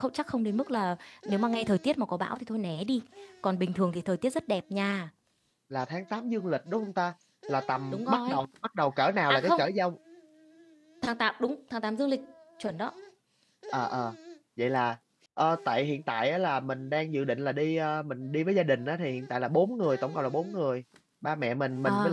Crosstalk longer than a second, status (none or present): none